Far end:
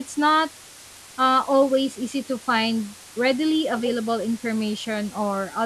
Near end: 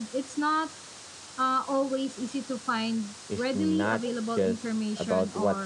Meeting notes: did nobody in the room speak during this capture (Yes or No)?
No